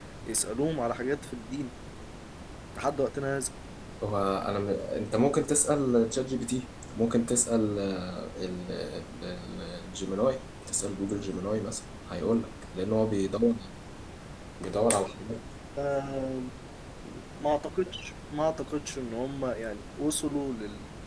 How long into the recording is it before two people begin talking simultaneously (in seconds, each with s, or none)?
none